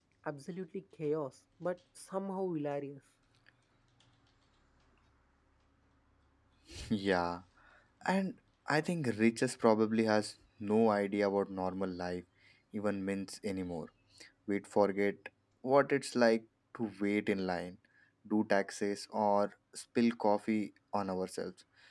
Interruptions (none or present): none